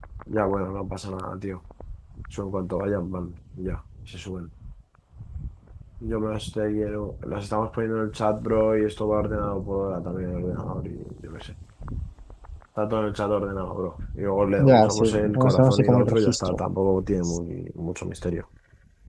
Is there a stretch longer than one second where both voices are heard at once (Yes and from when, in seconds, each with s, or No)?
Yes, from 14.6 s